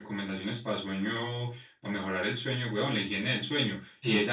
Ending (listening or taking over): listening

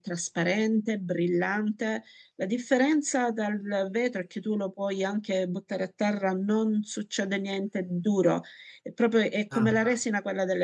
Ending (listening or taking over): listening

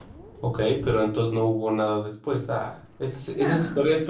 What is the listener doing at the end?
listening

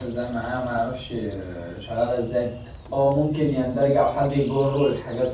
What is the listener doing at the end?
listening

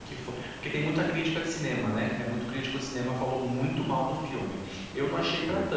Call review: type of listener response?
listening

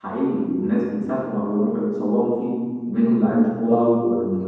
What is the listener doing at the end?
listening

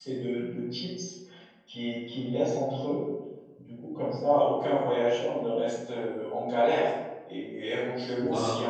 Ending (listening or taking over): listening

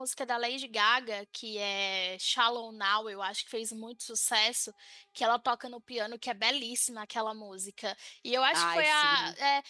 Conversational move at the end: listening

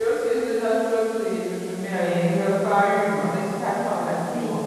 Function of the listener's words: taking over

